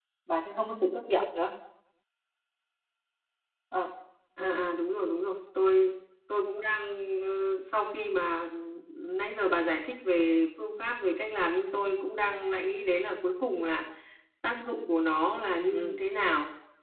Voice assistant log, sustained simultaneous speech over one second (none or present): none